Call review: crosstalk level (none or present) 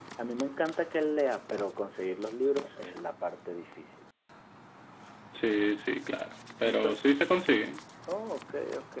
none